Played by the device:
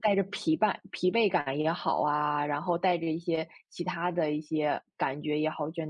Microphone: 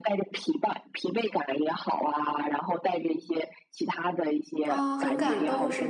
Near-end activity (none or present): present